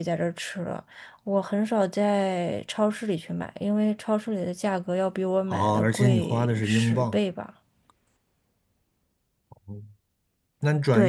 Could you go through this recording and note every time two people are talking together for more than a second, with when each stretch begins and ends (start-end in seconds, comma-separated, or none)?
5.5-7.2